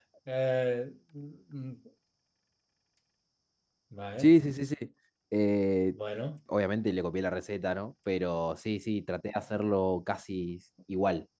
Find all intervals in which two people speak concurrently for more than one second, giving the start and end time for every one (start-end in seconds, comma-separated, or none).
none